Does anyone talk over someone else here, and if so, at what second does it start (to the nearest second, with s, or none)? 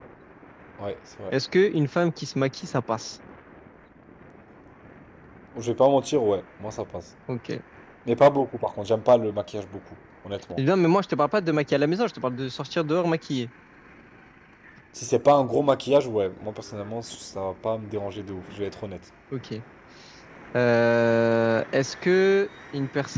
none